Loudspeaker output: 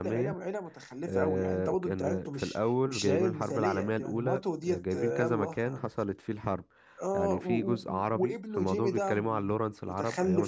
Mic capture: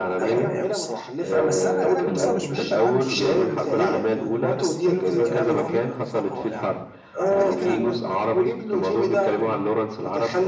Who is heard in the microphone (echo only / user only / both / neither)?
both